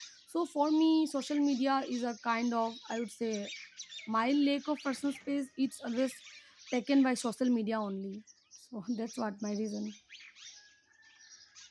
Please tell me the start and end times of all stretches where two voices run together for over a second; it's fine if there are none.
none

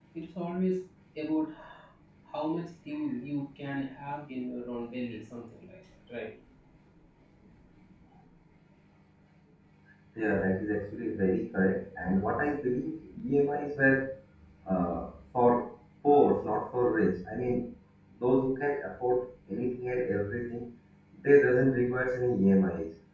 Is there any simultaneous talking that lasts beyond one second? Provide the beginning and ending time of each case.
none

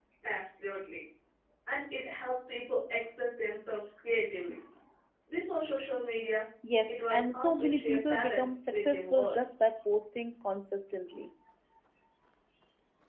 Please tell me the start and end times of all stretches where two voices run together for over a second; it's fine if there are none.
6.9-9.4

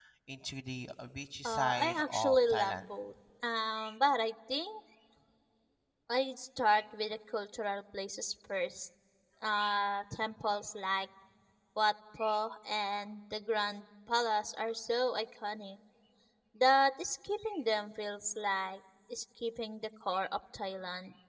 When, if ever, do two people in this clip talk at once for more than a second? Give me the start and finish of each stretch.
1.4-2.8

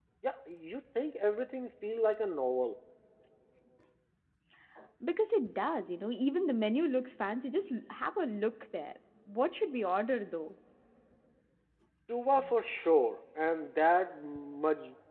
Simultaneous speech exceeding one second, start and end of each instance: none

